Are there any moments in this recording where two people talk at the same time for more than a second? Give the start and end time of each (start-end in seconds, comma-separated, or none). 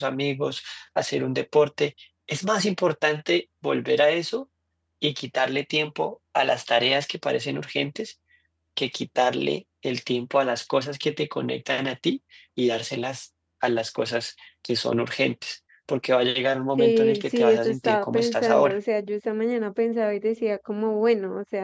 16.8-18.8